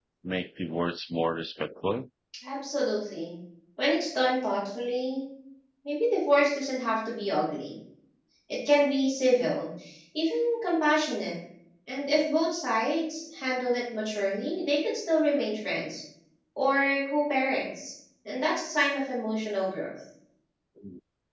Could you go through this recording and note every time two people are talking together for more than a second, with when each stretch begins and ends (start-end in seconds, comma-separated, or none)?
none